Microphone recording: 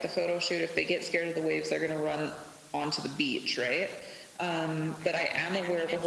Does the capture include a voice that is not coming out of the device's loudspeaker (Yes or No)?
Yes